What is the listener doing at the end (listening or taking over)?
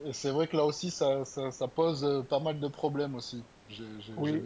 taking over